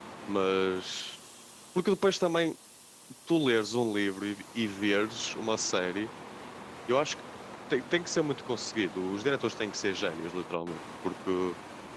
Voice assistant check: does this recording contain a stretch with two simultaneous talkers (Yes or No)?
No